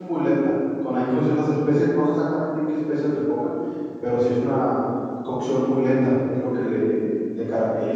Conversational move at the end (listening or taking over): taking over